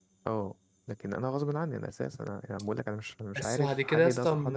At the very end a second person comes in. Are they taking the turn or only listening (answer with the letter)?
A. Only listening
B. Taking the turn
B